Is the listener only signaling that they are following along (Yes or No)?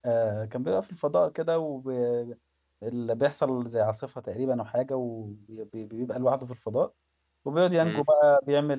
Yes